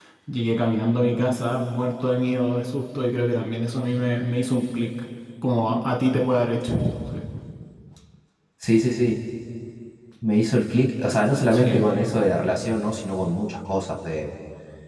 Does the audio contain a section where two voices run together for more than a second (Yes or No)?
No